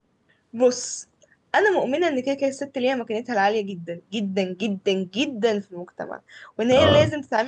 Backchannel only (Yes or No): Yes